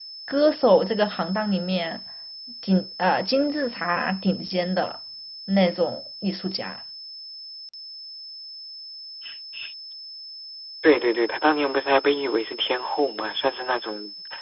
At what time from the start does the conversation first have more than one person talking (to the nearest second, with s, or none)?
none